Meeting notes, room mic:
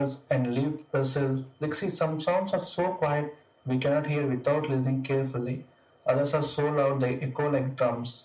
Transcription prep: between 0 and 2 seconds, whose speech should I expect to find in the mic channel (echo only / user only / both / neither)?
echo only